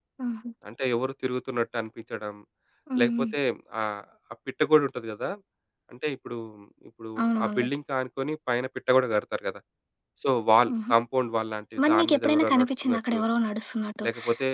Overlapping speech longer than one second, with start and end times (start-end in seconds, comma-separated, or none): 11.9-13.2